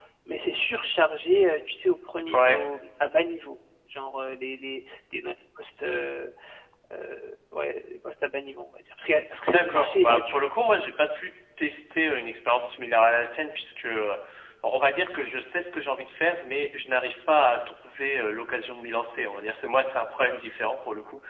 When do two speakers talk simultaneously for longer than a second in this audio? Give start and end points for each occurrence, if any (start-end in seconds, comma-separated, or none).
9.5-10.8